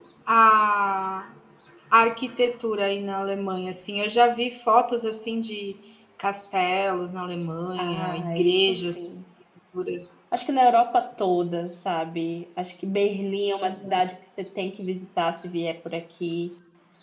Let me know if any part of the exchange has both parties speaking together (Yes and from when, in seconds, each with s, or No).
Yes, from 7.8 s